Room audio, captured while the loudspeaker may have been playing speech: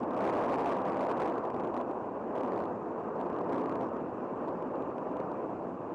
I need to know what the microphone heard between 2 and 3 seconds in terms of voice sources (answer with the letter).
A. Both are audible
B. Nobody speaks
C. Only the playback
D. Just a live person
B